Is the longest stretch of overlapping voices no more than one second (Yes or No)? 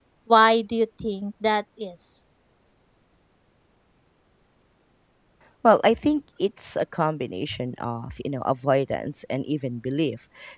Yes